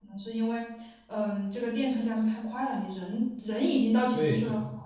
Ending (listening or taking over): taking over